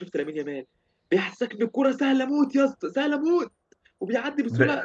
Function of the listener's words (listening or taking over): listening